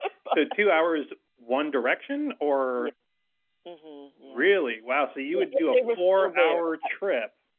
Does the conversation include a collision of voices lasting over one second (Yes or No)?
Yes